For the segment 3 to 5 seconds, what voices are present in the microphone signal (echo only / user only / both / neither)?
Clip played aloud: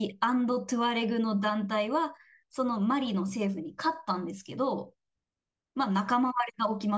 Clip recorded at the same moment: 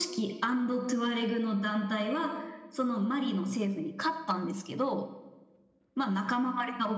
echo only